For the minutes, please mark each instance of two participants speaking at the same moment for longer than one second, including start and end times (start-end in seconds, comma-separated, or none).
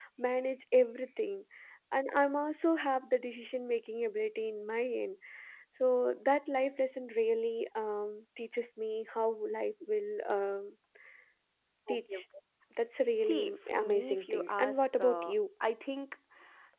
13.2-15.3